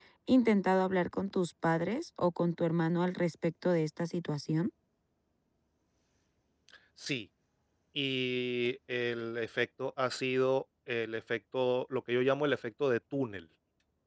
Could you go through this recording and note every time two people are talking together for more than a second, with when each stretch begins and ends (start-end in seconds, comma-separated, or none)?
none